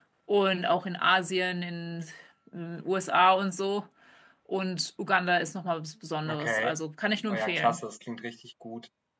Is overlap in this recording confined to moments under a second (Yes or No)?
Yes